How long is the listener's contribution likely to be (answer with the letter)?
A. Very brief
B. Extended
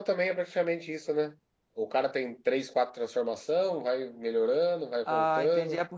B